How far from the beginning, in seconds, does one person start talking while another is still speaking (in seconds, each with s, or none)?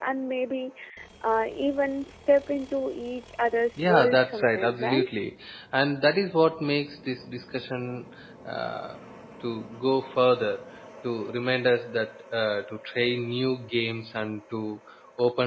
3.8 s